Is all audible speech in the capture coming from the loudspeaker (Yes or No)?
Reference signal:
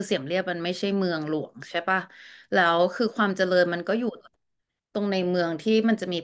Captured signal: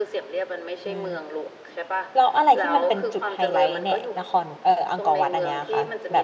No